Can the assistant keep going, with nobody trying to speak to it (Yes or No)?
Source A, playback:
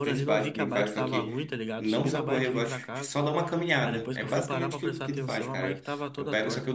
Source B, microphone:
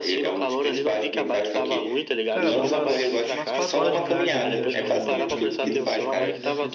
No